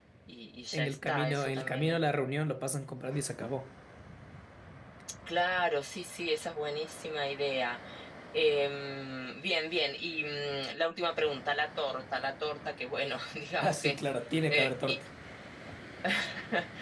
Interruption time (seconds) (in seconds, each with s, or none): 0.7 s